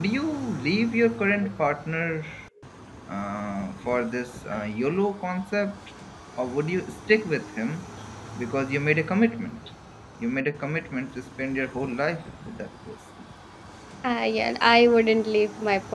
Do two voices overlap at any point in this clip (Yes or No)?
No